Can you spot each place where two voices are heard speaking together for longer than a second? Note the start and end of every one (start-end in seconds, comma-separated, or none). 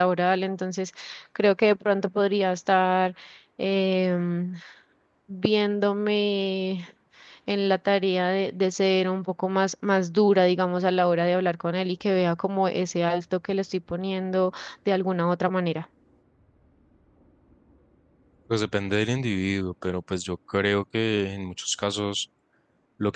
none